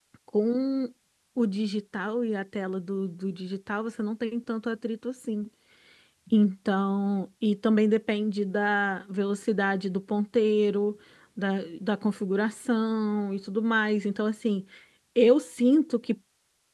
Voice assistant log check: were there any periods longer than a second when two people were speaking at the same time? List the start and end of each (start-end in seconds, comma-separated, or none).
none